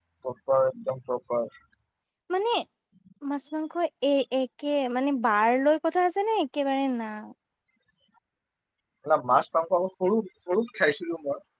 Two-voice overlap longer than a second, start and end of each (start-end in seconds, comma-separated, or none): none